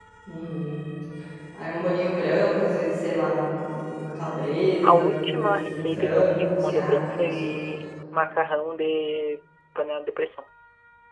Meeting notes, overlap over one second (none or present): present